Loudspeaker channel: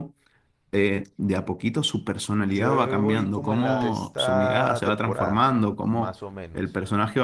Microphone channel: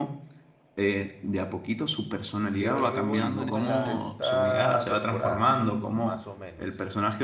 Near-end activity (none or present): present